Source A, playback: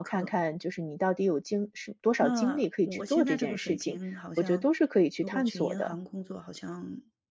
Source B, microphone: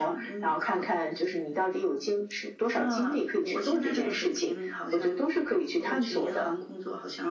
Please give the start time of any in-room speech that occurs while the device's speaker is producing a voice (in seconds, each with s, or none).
none